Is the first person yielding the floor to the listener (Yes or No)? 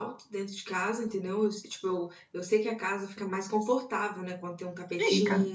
No